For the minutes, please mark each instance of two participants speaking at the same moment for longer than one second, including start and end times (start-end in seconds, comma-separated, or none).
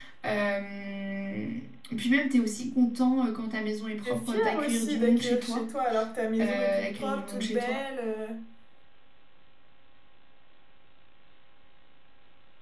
4.0-5.7, 6.4-7.8